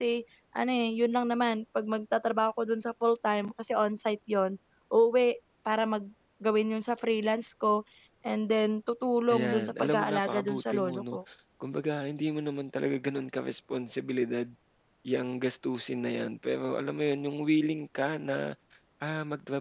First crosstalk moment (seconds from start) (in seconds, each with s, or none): 9.3 s